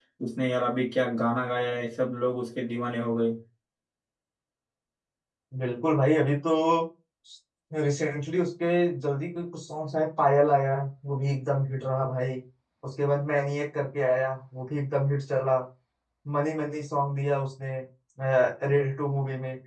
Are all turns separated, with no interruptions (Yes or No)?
Yes